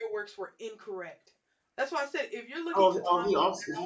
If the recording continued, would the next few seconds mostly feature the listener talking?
Yes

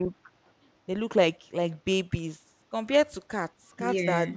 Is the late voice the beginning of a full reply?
No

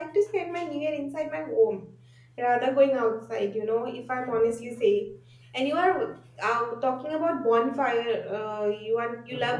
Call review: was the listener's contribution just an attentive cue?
Yes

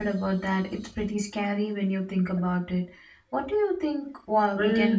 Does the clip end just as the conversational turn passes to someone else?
Yes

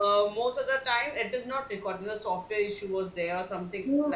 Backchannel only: No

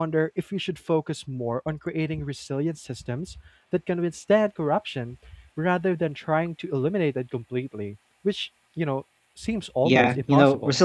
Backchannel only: No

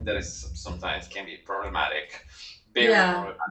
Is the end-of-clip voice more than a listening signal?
Yes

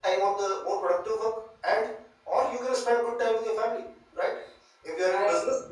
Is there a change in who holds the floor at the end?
No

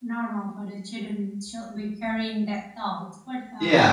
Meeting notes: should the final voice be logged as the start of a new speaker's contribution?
Yes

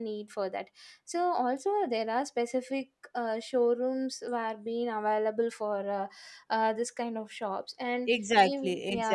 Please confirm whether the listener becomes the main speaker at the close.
Yes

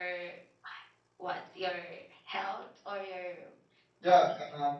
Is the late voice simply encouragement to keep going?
No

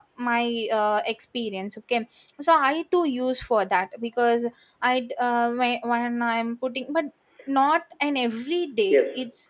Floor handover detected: No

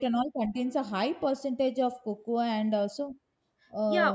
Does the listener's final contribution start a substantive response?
Yes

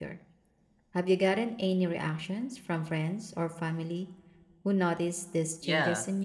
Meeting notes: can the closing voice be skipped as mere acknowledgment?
No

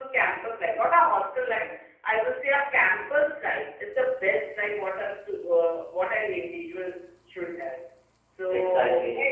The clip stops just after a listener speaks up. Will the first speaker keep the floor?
Yes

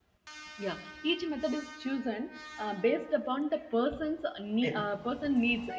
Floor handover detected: No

